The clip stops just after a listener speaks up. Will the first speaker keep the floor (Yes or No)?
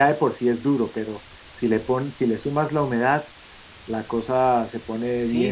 No